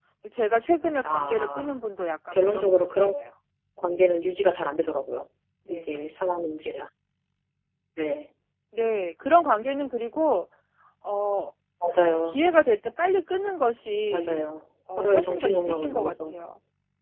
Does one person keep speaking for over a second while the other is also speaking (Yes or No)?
Yes